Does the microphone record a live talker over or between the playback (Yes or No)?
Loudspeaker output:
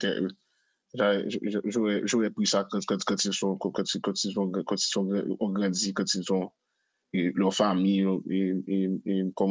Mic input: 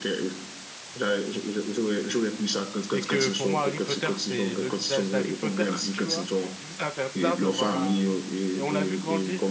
Yes